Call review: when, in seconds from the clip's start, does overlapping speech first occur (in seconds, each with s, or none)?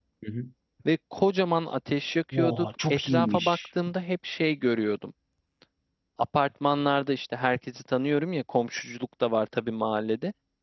2.3 s